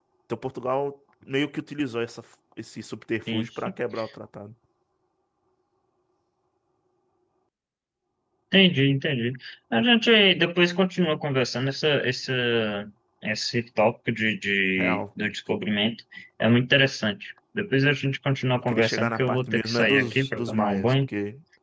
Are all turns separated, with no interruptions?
No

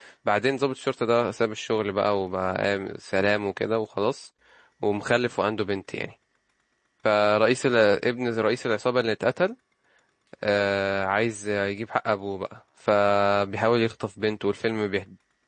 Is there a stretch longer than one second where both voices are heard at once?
No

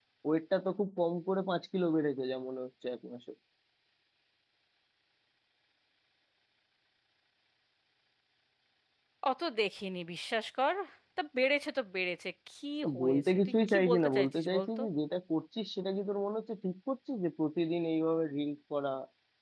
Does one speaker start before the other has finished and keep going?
Yes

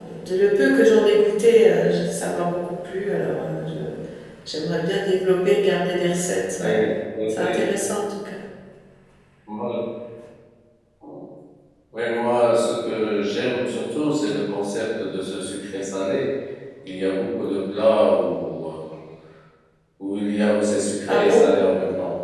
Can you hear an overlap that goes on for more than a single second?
No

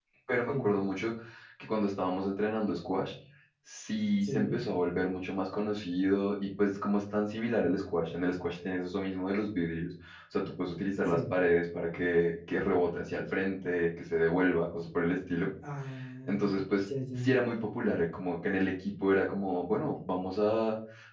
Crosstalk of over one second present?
No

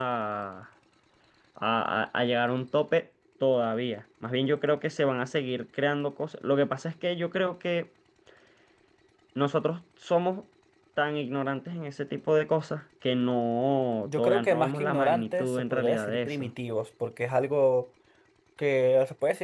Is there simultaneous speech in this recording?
Yes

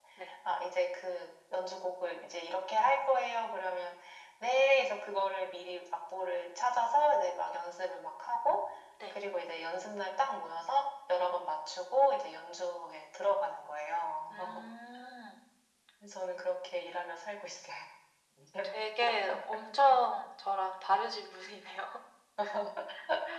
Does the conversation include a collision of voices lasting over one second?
No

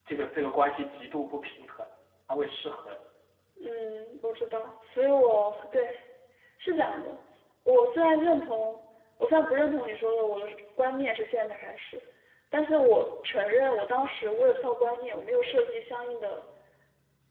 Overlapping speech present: No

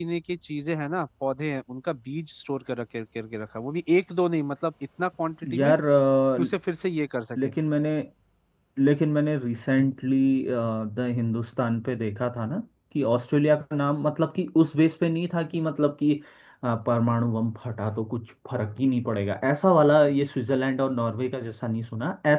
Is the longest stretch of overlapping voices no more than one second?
Yes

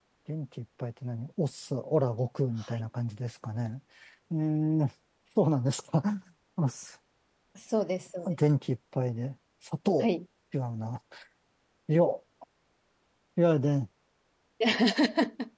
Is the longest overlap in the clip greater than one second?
No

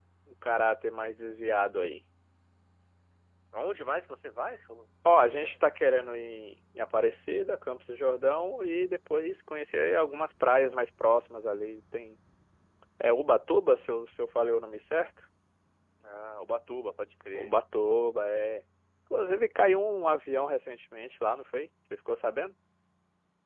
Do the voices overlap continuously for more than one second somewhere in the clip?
No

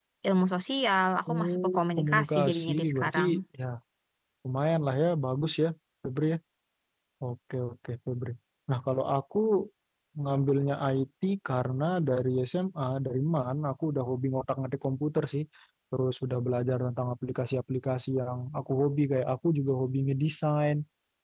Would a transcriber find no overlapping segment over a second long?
No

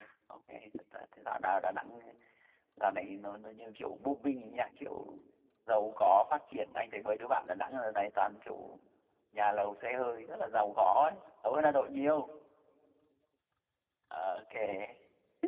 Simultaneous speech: No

